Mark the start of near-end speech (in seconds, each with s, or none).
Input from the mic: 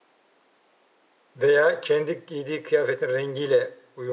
1.4 s